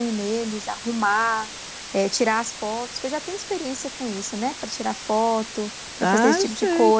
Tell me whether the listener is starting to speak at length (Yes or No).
Yes